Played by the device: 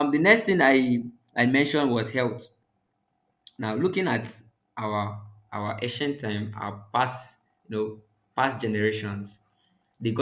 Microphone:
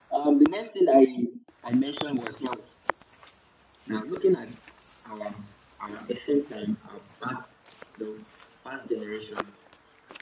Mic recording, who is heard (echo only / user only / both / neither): echo only